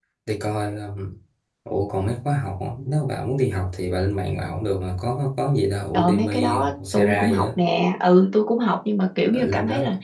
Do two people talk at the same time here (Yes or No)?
Yes